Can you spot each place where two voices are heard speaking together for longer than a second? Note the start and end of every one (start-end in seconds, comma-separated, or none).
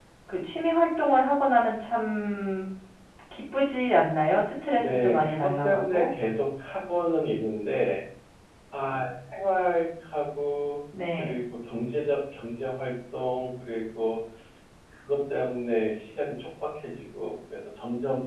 4.8-6.1